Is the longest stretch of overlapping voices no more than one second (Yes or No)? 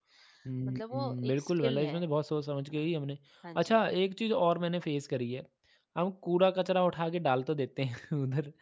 No